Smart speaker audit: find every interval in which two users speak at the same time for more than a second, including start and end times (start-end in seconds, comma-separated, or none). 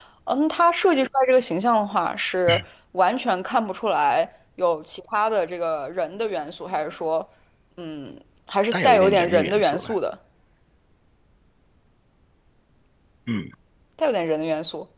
8.7-10.0